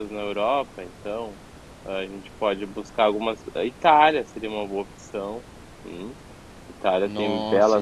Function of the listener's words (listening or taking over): taking over